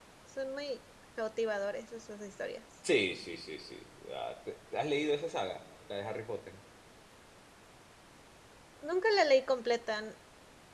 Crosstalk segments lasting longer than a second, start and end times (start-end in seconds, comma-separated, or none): none